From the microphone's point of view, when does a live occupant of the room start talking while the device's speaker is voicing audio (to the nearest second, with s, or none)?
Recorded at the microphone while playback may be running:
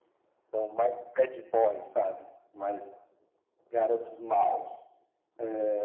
none